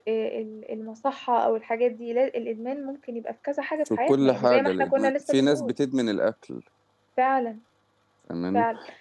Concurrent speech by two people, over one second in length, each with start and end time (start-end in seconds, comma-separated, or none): 4.0-5.7